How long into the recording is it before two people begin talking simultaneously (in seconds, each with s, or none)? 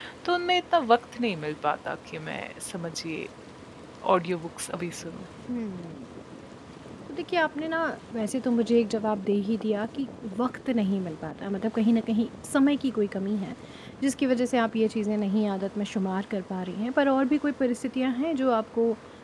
none